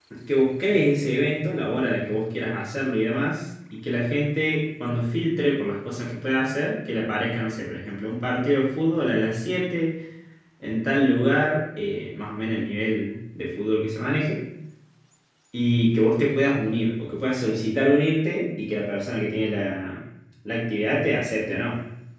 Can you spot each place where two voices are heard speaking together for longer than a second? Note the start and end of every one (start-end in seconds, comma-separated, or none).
none